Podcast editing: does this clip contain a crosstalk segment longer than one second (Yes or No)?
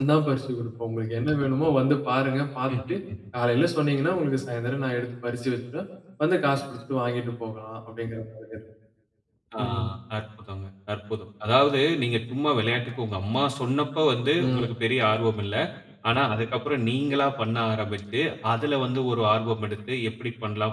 No